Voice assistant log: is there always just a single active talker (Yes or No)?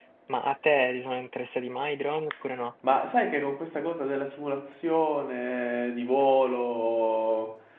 Yes